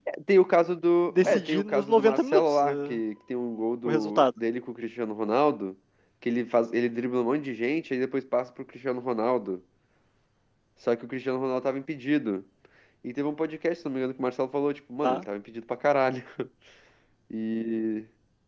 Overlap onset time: 1 s

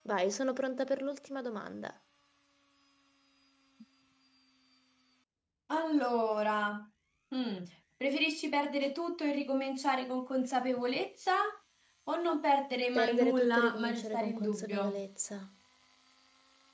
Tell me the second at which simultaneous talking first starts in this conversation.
13 s

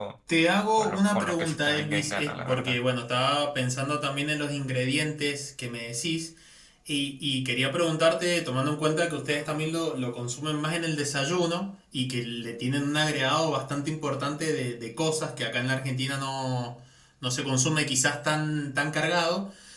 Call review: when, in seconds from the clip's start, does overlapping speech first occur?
1 s

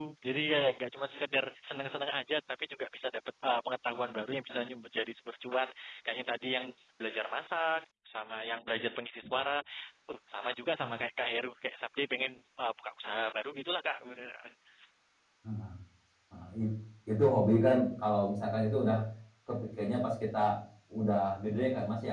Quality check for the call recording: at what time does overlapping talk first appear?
none

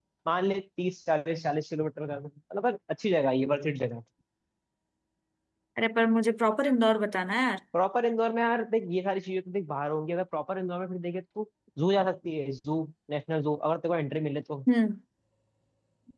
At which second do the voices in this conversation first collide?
none

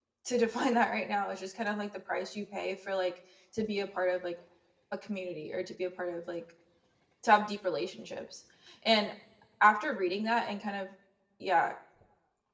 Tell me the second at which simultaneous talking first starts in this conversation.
none

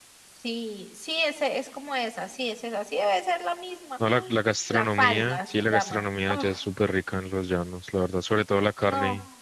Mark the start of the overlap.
4 s

